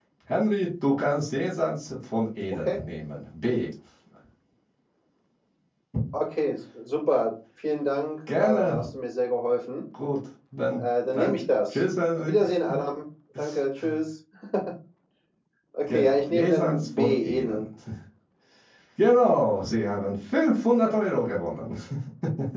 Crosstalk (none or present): present